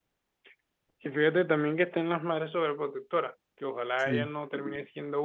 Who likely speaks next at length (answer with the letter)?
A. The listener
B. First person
B